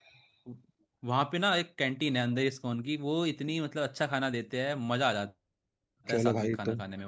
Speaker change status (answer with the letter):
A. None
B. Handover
B